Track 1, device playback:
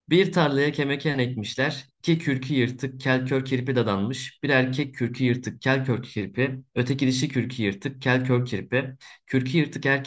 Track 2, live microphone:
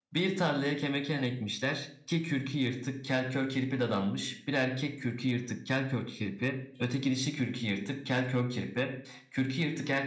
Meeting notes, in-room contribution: none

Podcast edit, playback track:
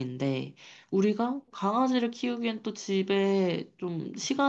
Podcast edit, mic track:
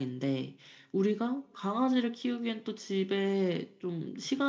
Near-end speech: none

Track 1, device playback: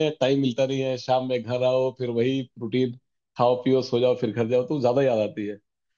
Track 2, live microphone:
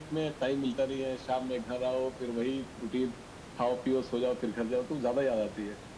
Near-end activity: none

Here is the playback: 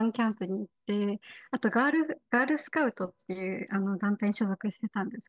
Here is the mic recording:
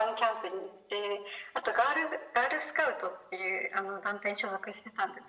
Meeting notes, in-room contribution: none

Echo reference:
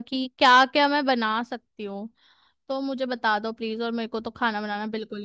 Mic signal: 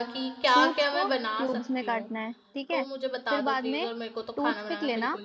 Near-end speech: present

